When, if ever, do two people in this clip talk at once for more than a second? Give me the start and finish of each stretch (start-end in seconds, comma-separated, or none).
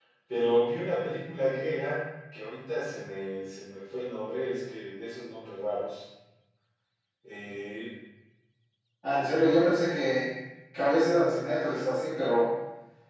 none